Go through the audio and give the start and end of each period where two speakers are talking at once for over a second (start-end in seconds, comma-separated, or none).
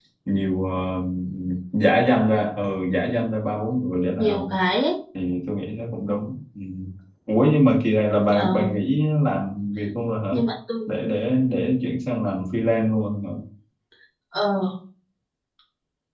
none